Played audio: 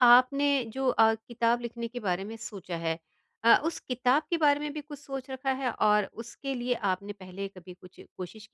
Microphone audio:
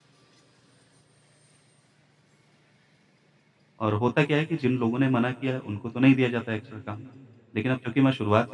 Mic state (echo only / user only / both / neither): user only